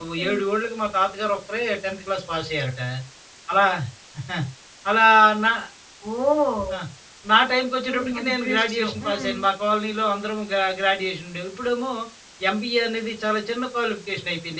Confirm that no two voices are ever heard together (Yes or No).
No